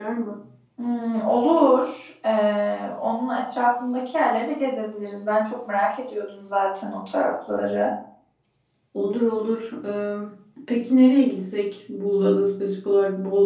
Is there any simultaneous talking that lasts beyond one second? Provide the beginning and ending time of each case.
none

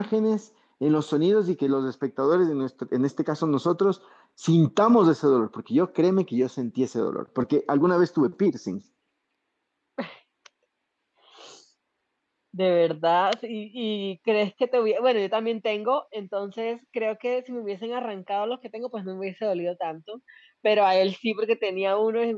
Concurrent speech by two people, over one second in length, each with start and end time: none

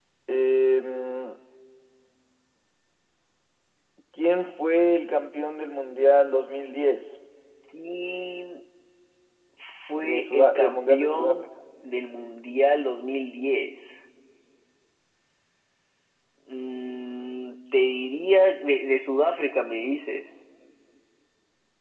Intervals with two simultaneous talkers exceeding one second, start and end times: 10.0-11.4

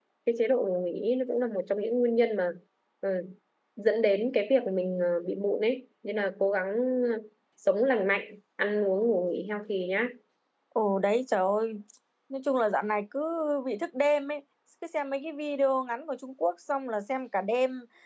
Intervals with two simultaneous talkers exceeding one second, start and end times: none

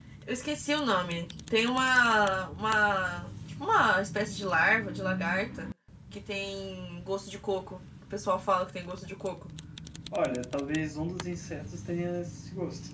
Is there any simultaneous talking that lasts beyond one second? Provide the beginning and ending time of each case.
none

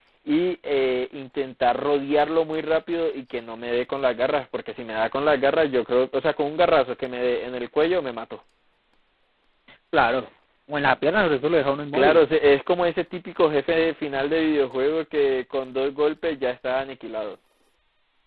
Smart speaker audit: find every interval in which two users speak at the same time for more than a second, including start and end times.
none

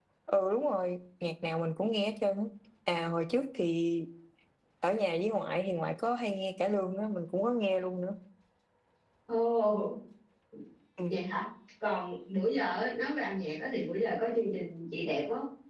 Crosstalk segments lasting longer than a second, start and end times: none

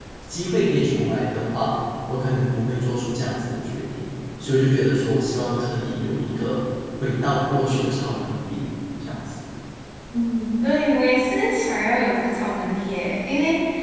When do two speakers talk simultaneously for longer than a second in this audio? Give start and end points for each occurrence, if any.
none

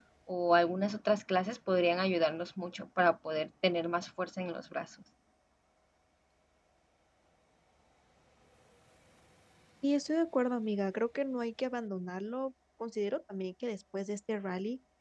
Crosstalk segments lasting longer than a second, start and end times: none

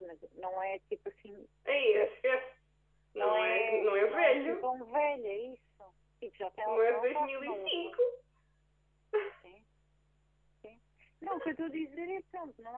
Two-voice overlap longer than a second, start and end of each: 3.2-4.7, 6.7-8.0

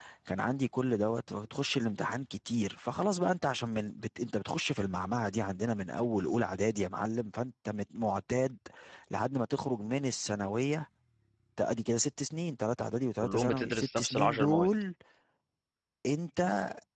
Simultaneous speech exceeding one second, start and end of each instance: 13.2-14.7

